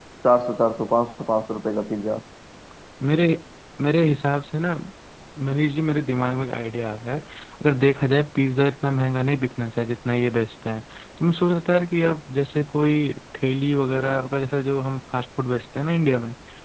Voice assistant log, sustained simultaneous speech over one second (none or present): none